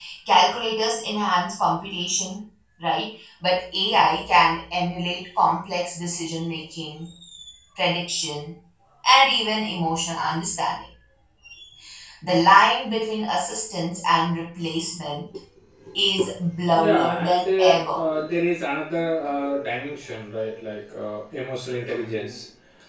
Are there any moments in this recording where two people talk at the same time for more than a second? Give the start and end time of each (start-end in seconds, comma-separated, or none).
16.8-18.0